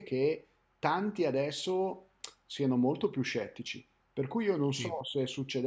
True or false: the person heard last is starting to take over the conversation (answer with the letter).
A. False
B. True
A